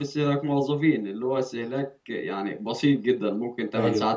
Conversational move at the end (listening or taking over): listening